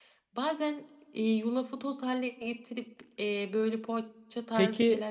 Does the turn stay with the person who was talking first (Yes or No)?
No